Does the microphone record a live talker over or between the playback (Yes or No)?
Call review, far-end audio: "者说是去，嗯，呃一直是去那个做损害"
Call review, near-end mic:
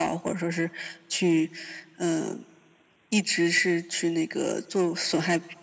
No